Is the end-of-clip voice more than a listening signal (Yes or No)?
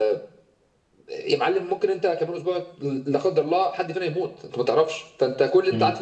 No